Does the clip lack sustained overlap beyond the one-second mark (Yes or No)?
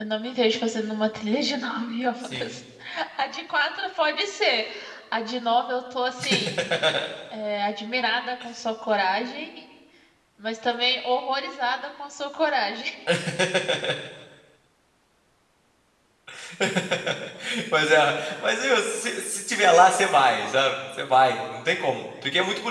Yes